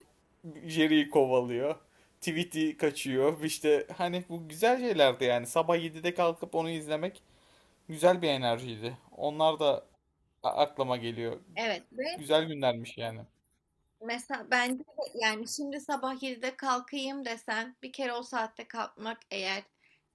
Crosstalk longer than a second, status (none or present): none